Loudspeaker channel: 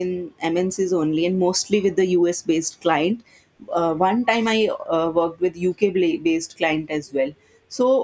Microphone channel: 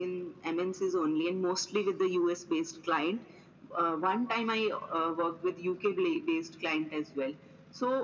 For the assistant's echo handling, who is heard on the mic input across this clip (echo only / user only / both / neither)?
echo only